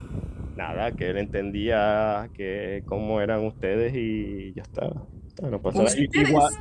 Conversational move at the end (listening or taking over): listening